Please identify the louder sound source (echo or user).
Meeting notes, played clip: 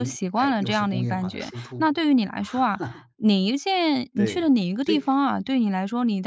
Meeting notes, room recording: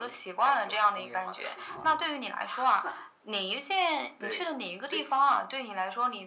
echo